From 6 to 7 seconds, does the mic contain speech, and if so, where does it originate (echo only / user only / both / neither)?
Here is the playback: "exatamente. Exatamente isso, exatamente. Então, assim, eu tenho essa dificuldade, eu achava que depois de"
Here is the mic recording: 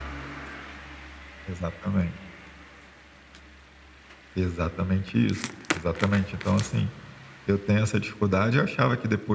echo only